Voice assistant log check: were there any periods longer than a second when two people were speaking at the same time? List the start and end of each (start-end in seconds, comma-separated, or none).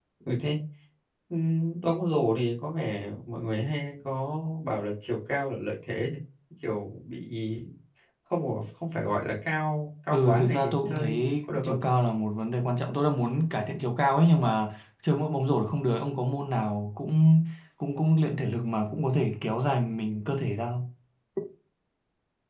10.1-11.8